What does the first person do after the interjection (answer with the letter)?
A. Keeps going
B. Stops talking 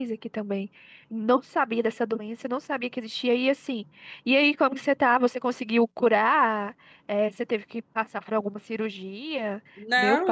B